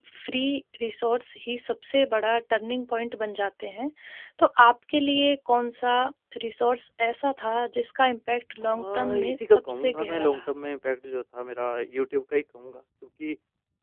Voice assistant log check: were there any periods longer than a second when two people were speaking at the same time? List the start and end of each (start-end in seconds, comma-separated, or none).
8.6-10.5